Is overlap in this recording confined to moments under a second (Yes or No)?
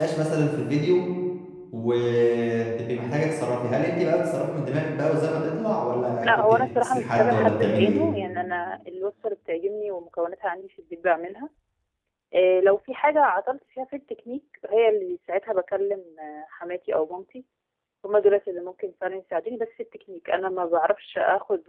No